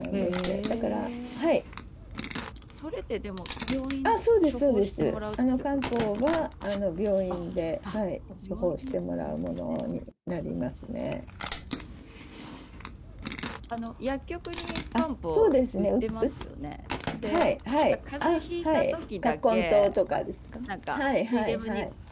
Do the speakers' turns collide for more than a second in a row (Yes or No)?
Yes